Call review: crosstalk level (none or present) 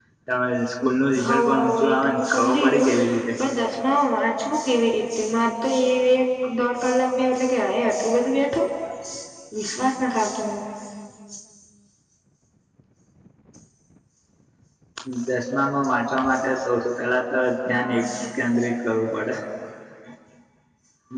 present